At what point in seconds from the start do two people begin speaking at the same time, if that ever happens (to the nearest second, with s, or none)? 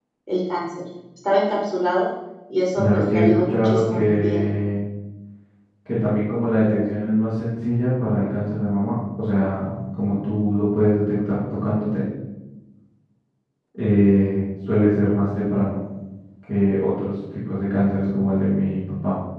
3 s